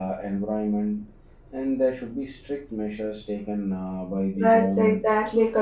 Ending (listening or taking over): taking over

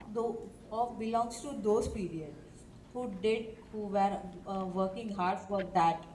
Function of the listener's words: listening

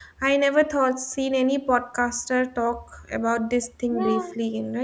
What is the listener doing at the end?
taking over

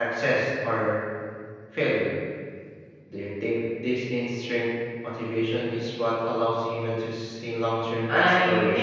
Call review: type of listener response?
taking over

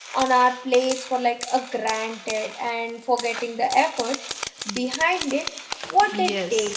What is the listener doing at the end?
taking over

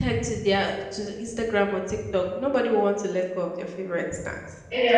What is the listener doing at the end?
taking over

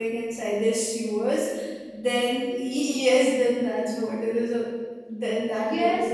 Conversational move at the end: taking over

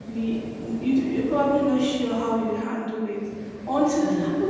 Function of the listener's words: listening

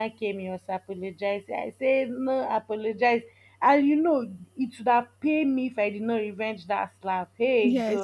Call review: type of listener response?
listening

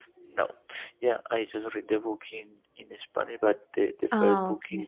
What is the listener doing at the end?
listening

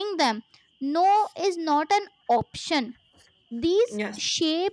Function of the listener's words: listening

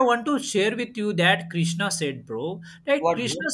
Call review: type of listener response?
listening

